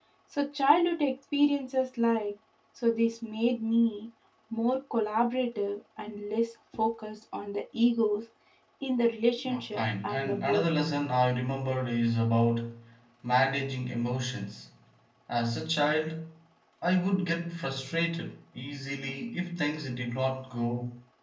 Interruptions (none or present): present